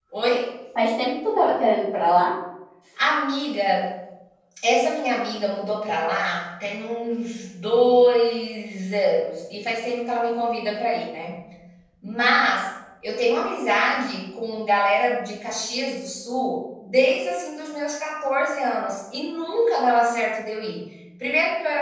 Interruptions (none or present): none